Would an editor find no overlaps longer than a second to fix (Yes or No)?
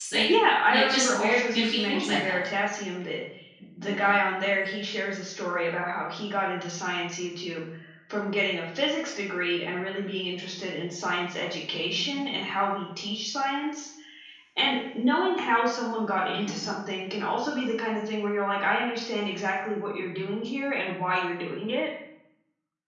No